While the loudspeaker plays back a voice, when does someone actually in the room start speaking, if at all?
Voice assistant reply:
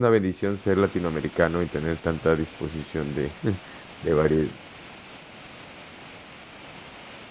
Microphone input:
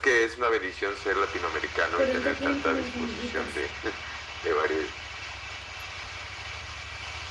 2 s

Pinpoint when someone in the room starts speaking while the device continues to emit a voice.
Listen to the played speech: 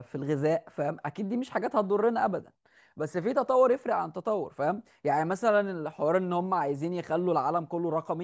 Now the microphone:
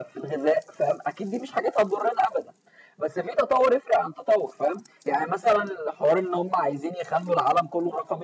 none

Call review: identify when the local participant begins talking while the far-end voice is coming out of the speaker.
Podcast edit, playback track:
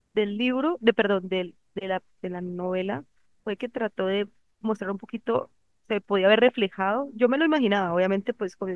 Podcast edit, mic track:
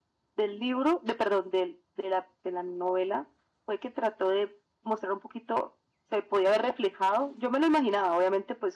none

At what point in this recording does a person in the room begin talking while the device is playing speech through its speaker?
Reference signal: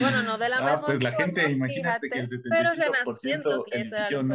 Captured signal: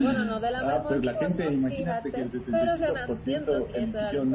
none

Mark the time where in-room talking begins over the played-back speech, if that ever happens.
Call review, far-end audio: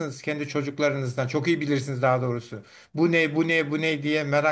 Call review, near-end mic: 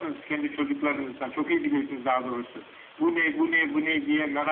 none

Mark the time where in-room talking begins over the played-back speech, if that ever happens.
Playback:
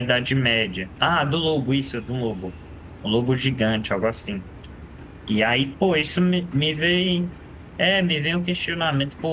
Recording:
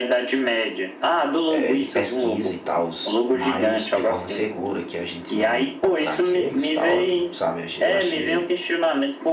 1 s

